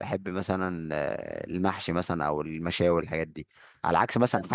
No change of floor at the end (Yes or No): Yes